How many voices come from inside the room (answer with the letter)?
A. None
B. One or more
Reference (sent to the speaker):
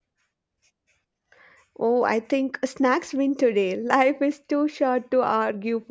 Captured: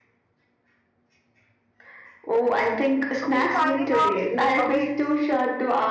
B